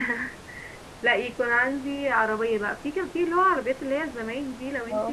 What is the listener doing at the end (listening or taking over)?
listening